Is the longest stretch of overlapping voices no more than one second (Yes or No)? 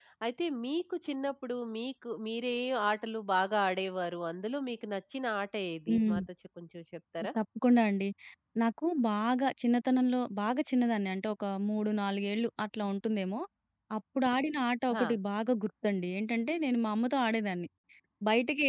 Yes